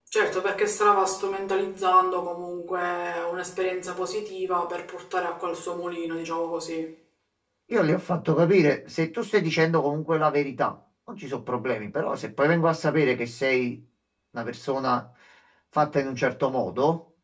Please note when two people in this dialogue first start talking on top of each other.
none

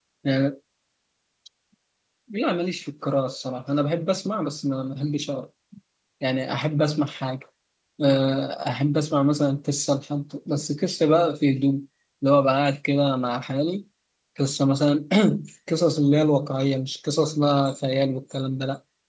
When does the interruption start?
none

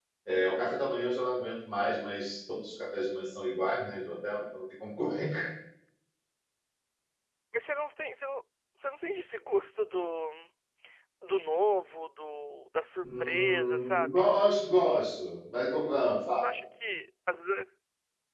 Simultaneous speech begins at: 13 s

